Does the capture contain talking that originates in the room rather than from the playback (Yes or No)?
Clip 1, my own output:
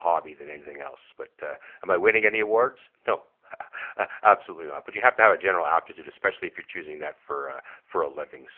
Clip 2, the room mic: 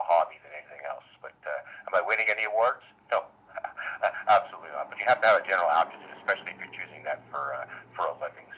No